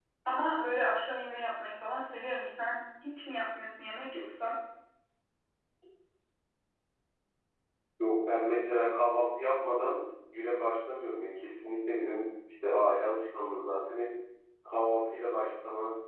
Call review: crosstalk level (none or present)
none